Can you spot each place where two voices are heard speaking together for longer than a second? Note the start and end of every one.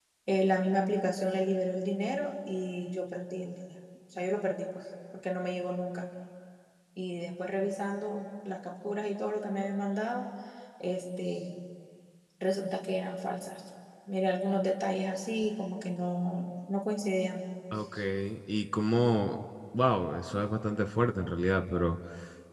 none

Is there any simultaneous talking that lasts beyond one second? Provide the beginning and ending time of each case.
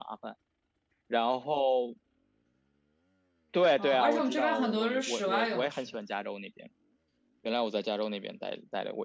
3.8-5.9

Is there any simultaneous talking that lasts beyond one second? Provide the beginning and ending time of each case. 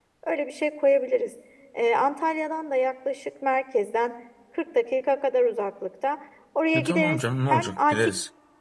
6.8-8.1

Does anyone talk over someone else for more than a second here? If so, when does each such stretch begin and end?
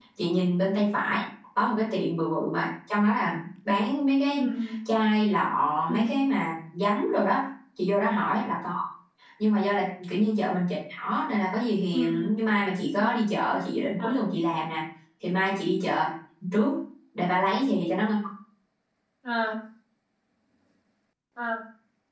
none

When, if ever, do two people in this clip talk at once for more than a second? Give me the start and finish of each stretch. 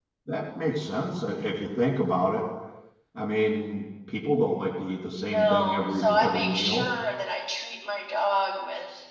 5.2-6.8

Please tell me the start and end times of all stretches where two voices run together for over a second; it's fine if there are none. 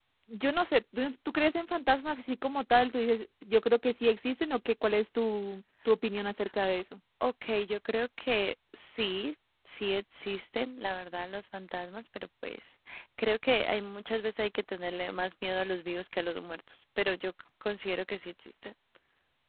none

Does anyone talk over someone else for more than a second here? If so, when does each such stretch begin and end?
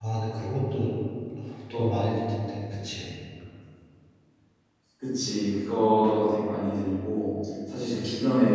none

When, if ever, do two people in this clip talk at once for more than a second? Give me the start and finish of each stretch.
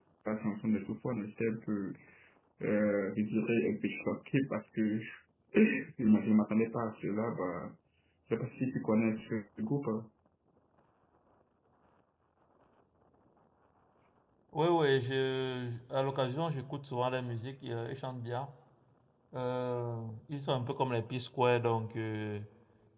none

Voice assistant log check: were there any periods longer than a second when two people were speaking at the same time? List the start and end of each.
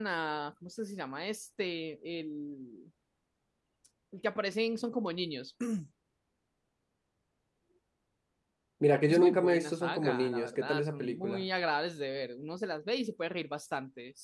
9.1-11.4

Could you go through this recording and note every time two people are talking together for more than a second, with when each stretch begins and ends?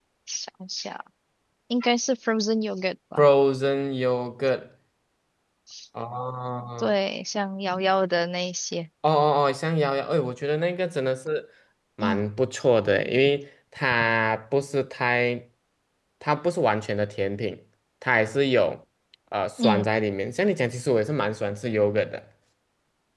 none

